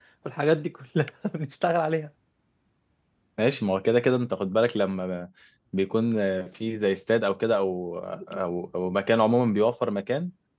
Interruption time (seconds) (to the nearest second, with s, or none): none